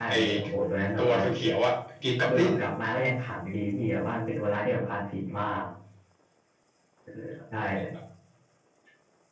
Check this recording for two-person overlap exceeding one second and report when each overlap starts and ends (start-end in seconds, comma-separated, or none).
none